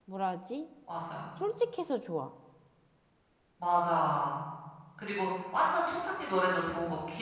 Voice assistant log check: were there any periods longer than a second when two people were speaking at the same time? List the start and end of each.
none

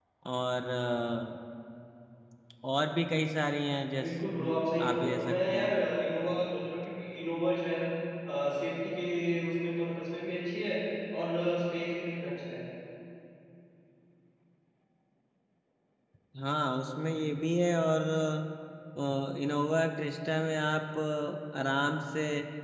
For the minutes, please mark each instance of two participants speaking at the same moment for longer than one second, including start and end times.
4.0-5.8

